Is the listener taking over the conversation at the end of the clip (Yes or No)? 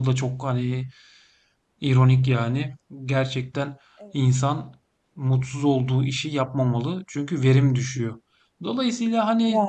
No